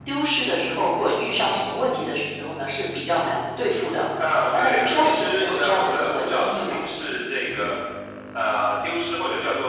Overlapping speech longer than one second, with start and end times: 4.6-6.8

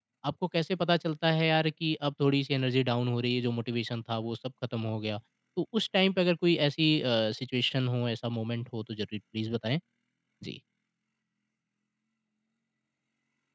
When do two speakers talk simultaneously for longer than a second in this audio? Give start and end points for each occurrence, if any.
none

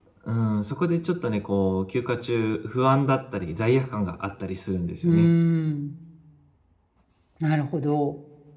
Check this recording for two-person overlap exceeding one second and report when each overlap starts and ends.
none

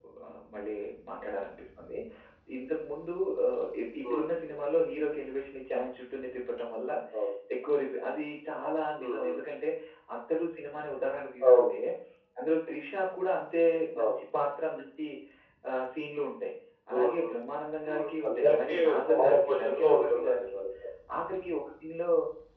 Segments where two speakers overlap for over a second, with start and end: 17.9-20.4

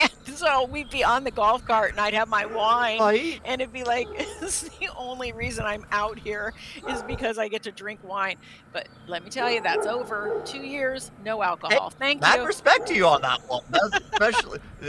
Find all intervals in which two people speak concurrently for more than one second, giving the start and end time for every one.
none

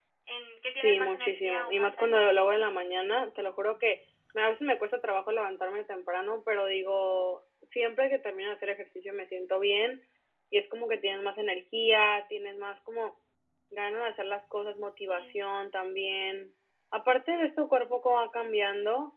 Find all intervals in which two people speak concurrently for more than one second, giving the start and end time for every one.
0.8-2.2

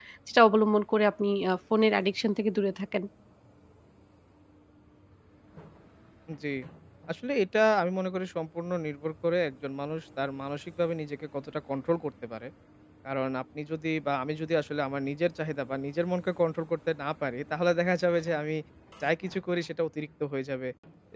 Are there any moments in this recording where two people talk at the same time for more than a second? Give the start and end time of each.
none

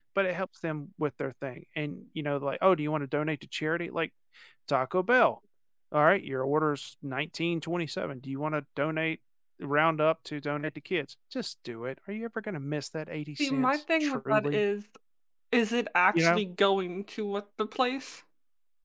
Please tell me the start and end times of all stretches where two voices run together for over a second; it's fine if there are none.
13.4-14.6

